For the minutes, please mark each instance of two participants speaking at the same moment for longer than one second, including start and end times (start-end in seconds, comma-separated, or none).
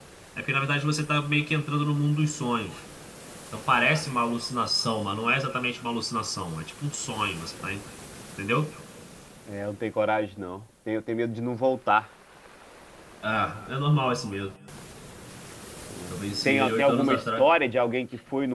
16.1-17.5